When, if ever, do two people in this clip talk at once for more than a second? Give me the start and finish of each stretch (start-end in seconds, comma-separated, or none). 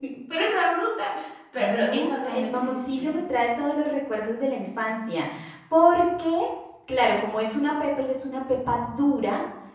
1.6-3.2